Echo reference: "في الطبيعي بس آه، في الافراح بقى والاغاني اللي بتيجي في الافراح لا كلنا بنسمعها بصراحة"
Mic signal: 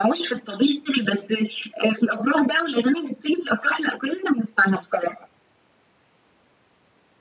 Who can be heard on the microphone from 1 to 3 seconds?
echo only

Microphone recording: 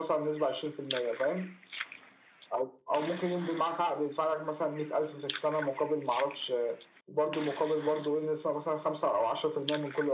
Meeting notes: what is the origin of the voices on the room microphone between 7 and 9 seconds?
echo only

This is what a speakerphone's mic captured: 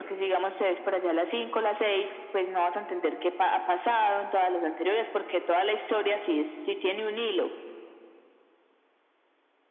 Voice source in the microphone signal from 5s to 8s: echo only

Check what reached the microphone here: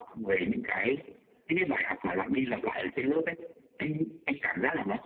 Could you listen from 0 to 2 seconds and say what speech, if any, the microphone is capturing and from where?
echo only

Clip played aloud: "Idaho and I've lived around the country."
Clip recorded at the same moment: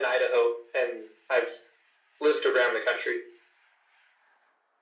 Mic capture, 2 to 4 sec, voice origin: echo only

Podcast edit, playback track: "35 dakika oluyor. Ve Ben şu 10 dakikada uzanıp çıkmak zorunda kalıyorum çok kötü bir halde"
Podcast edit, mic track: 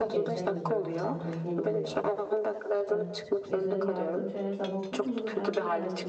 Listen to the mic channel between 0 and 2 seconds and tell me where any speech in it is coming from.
both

